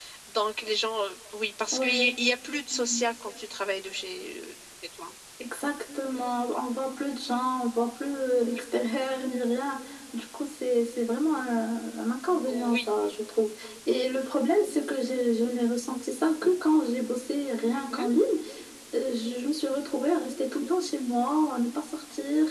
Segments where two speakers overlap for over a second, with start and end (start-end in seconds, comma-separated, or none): none